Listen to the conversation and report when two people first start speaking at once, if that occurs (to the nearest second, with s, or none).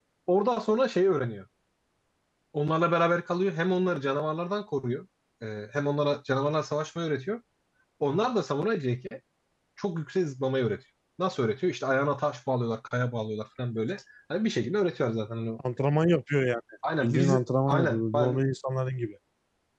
17 s